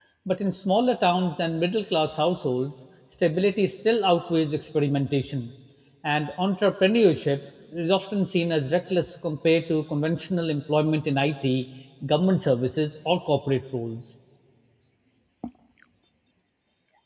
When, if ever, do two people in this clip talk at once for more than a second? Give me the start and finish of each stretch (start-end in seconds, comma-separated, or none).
none